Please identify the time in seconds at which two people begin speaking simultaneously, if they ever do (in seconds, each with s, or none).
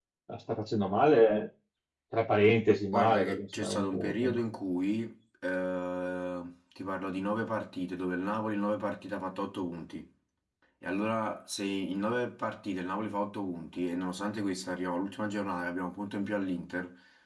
2.9 s